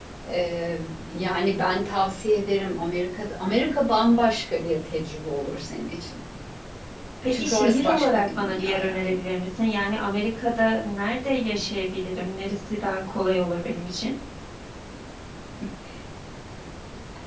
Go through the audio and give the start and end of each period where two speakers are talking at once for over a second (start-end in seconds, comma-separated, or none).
7.3-9.2